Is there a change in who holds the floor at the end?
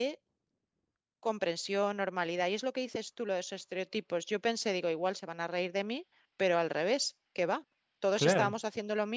No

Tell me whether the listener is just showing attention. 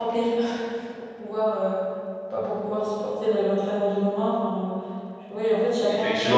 No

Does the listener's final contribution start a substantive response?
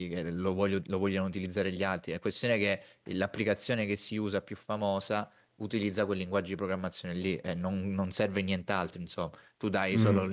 No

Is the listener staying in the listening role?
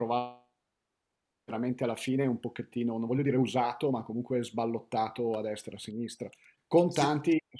Yes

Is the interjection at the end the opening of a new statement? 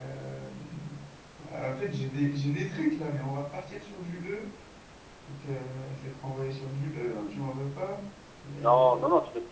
Yes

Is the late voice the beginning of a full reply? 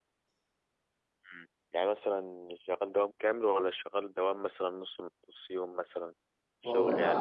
Yes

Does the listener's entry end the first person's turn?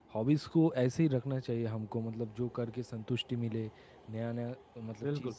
No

